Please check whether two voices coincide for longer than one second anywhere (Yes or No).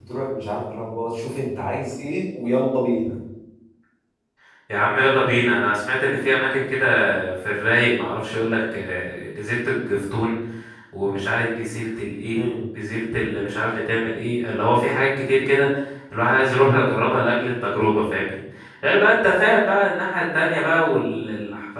No